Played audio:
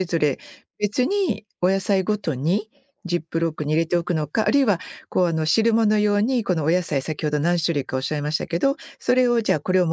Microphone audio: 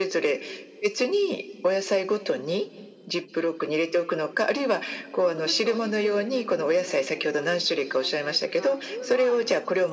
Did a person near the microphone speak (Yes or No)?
Yes